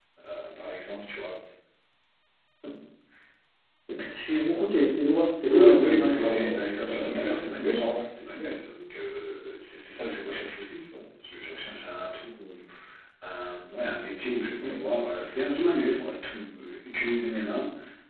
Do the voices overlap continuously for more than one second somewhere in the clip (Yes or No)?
Yes